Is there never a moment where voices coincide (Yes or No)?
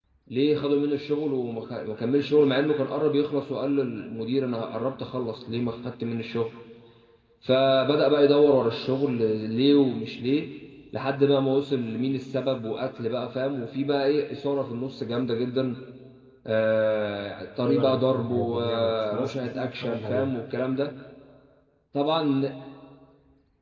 No